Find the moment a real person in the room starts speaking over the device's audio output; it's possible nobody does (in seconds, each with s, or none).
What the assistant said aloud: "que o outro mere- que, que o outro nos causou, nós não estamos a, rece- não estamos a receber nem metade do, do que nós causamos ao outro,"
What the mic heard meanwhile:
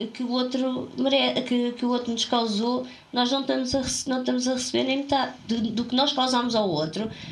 none